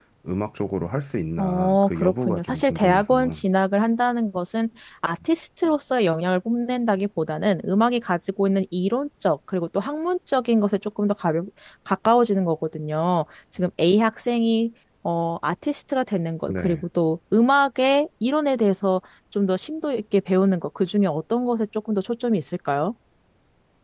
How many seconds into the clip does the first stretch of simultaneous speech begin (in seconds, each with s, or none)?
1.4 s